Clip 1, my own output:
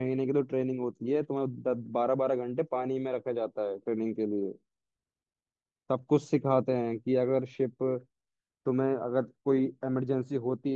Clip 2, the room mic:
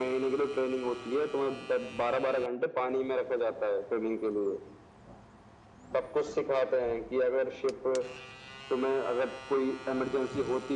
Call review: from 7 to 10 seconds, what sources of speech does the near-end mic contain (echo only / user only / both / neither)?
echo only